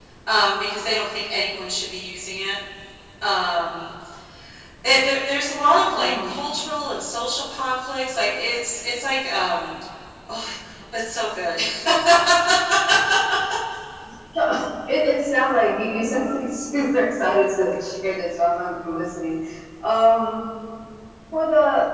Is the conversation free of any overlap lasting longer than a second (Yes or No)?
Yes